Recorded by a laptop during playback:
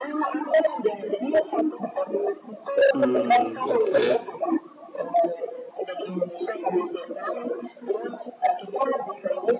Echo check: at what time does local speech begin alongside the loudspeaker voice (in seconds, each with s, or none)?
2.9 s